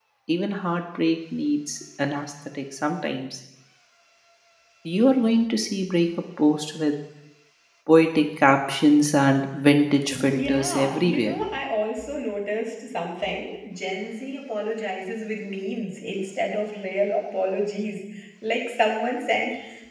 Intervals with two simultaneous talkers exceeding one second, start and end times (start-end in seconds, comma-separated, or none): 10.1-11.4